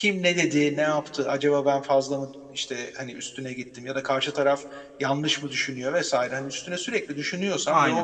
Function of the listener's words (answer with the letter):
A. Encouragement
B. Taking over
A